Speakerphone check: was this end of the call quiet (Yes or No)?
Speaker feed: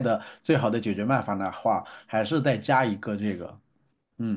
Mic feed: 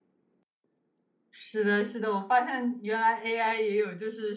No